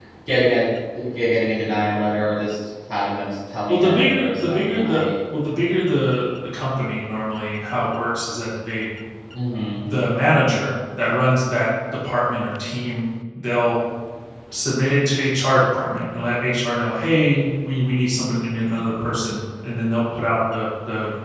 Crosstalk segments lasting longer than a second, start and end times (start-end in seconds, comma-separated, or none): 3.7-5.0